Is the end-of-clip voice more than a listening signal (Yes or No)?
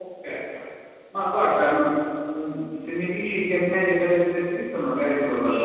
Yes